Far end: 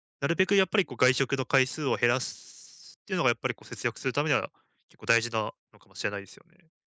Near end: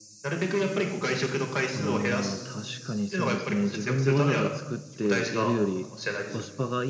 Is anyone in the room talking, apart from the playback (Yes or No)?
Yes